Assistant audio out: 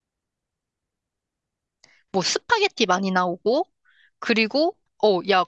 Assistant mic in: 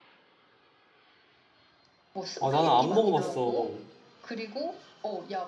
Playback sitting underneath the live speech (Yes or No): Yes